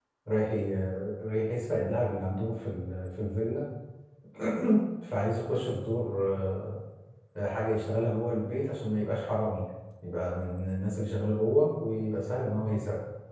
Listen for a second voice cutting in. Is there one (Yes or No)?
No